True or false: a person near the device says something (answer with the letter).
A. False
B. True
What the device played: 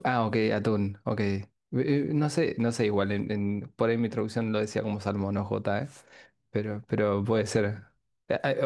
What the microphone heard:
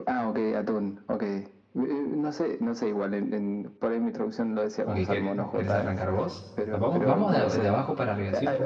B